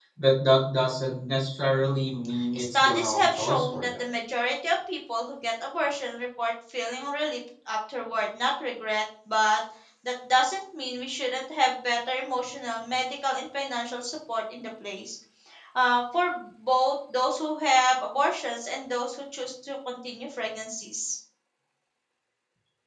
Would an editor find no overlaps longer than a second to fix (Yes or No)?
No